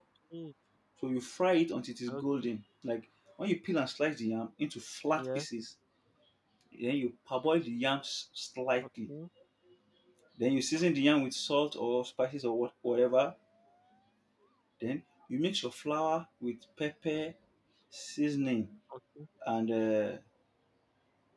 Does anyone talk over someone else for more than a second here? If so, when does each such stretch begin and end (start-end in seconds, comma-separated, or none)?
none